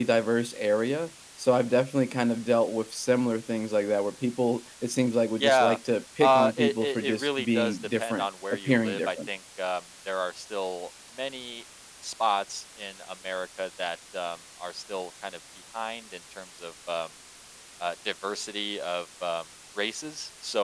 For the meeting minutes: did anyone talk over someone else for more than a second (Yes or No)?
Yes